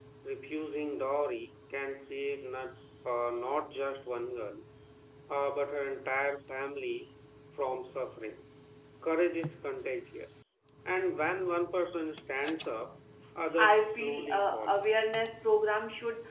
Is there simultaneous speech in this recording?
Yes, from 13.6 s

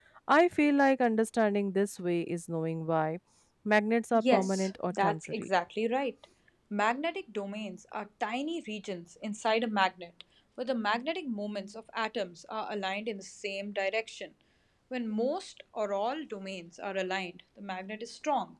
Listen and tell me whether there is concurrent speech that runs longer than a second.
Yes, from 4.1 s

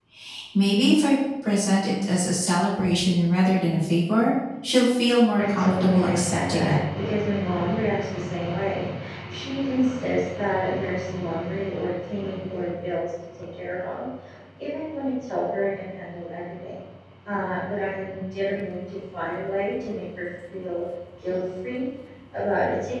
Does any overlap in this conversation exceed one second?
Yes, from 5.4 s

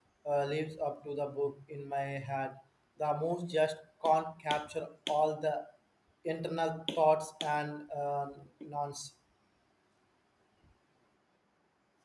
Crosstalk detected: No

